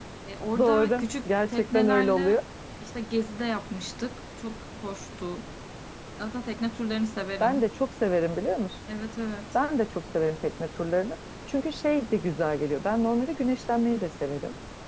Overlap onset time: 1 s

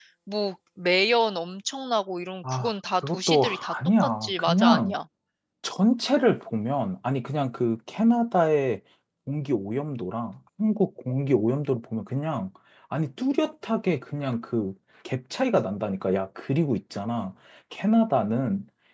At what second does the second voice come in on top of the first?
2 s

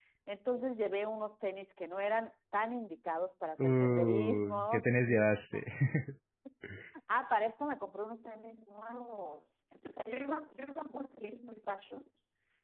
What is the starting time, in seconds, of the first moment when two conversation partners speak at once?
4 s

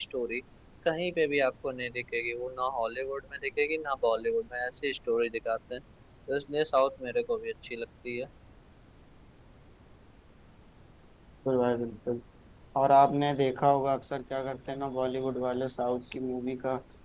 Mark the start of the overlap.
none

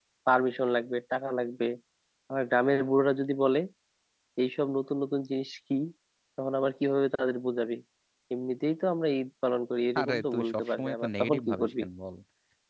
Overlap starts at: 10 s

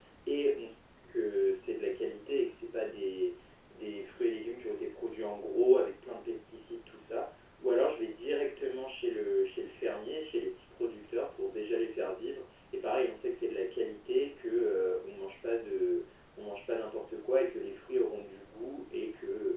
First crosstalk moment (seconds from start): none

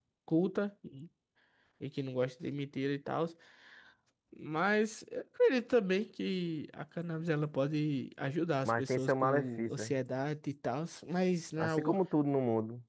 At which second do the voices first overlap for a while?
9 s

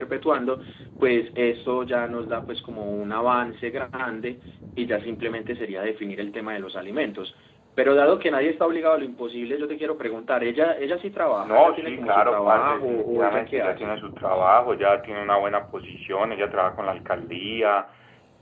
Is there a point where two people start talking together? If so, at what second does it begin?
11 s

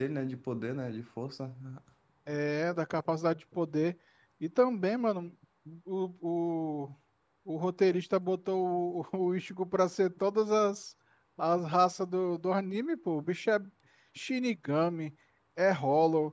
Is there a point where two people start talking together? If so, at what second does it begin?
none

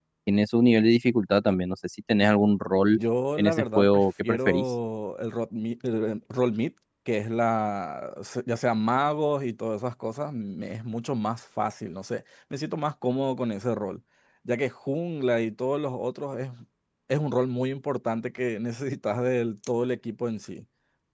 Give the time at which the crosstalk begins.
3 s

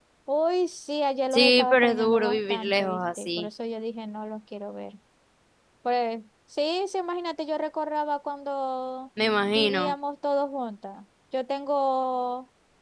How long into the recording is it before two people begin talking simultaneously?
1 s

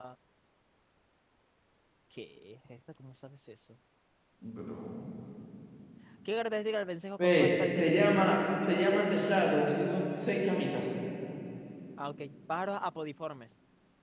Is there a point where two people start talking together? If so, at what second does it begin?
7 s

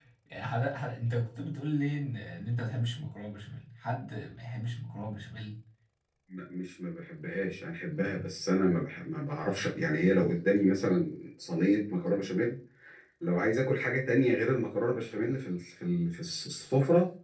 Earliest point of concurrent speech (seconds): none

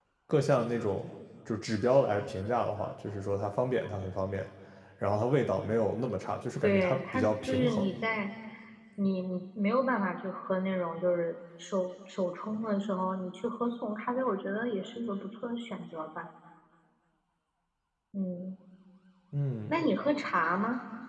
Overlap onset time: 7 s

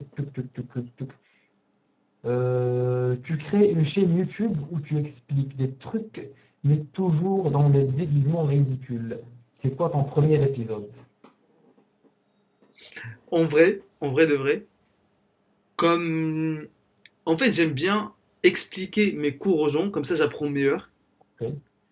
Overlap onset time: none

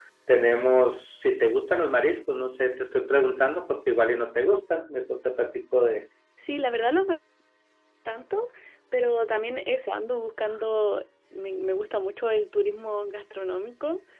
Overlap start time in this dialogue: none

